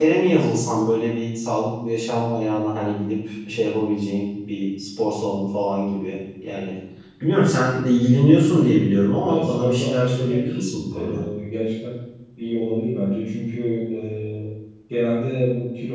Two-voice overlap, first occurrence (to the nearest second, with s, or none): 9 s